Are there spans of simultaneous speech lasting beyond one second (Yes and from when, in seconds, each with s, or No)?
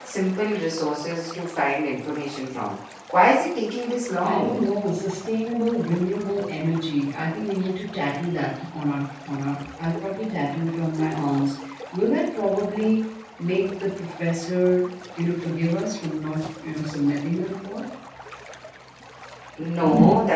No